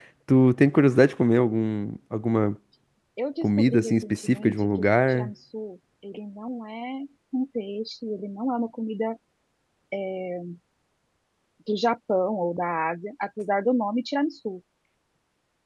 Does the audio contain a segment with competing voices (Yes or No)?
Yes